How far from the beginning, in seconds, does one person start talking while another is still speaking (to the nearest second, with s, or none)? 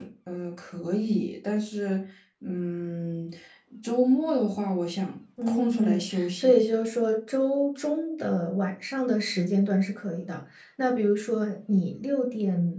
5 s